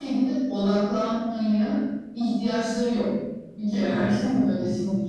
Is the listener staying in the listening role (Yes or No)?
Yes